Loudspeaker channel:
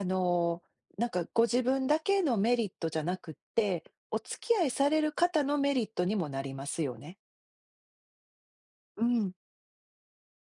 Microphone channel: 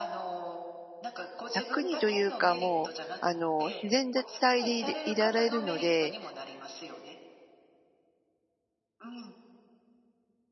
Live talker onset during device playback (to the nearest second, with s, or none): 2 s